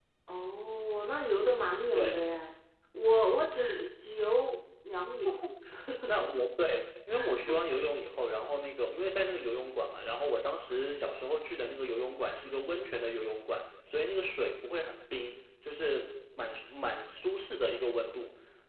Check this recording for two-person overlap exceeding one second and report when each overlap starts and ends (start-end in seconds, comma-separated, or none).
none